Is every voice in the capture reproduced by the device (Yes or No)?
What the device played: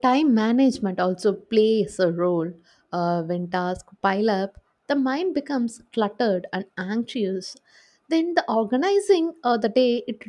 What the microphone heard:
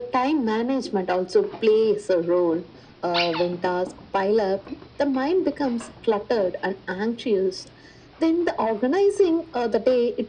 Yes